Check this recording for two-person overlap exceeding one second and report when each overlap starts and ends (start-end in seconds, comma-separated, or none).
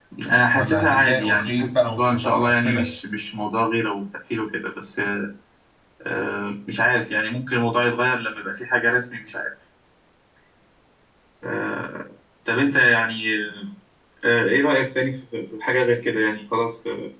0.6-2.9